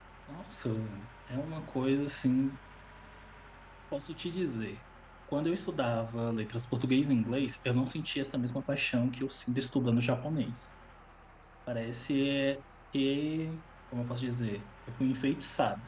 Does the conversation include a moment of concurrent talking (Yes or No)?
No